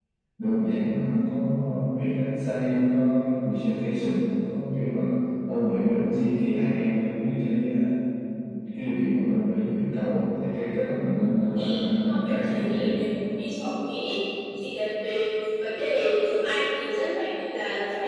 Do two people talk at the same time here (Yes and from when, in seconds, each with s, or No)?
Yes, from 11.5 s